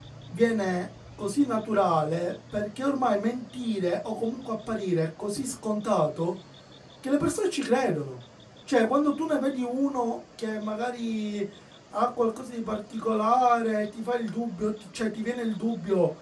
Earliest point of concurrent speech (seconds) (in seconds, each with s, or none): none